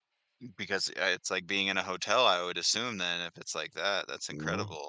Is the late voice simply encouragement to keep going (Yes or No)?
No